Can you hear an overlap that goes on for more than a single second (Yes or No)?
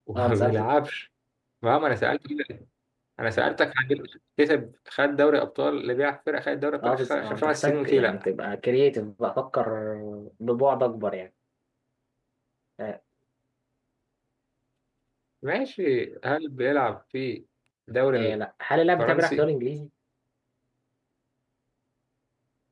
Yes